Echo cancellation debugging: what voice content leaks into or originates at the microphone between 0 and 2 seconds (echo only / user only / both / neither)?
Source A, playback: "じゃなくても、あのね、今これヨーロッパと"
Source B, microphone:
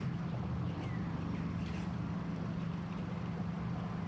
neither